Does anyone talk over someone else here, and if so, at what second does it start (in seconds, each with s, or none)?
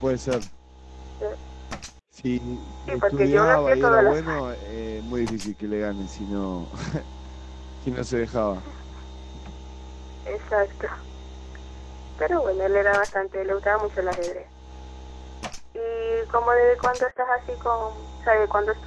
2.9 s